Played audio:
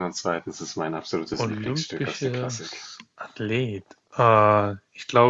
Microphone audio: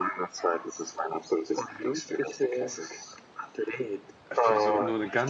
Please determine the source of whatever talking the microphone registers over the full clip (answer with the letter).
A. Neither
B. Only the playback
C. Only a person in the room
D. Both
D